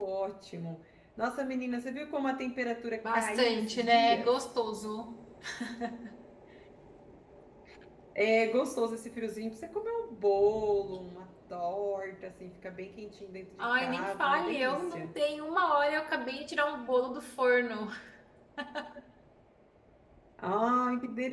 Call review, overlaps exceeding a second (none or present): present